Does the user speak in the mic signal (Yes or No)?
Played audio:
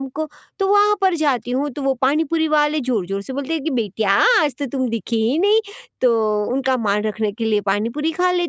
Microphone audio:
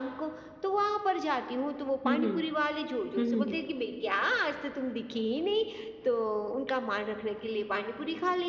Yes